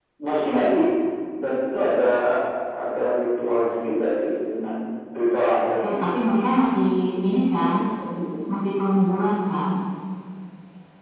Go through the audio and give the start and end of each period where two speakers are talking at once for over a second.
none

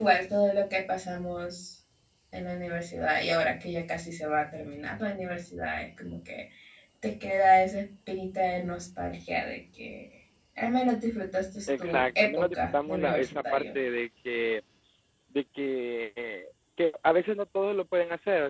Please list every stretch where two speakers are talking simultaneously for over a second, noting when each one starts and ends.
11.8-13.6

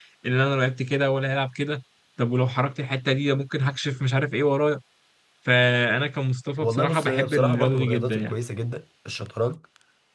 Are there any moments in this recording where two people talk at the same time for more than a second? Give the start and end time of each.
6.6-8.4

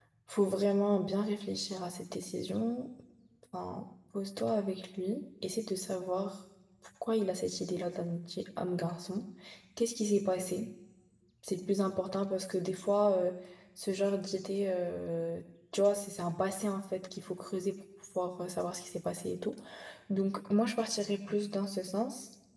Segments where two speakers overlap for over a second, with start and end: none

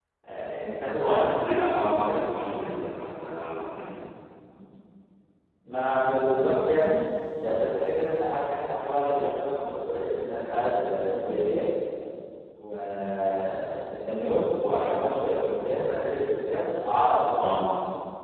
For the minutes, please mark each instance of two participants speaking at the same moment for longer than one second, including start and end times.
0.9-2.2

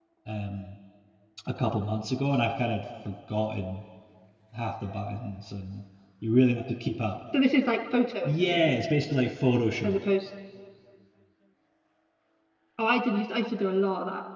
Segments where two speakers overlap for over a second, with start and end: none

